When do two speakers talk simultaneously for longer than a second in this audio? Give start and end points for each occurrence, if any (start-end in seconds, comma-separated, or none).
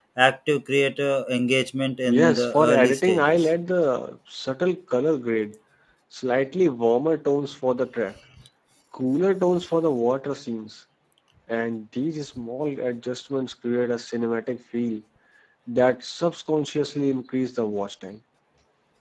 2.1-3.3